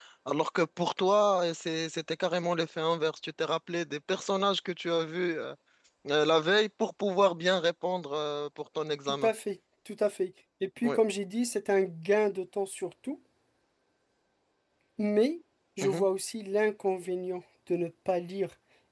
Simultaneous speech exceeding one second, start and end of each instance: none

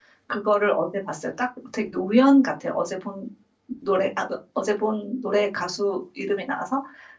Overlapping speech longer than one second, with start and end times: none

